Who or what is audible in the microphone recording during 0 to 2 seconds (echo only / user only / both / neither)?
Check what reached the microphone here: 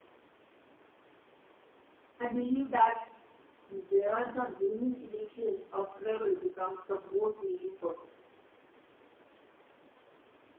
neither